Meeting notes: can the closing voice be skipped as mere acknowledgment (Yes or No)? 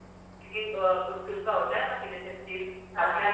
Yes